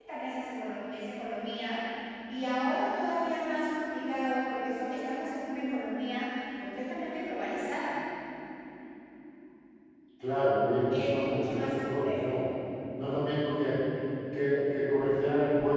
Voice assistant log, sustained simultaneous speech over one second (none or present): present